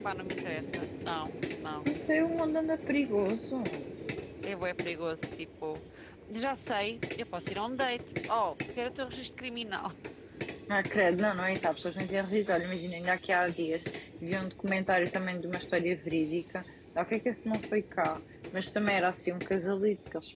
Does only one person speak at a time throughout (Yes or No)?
Yes